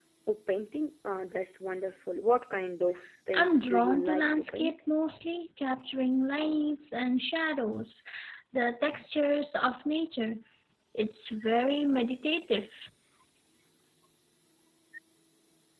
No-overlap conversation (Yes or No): No